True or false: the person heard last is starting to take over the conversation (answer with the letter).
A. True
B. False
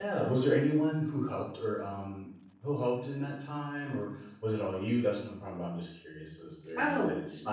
A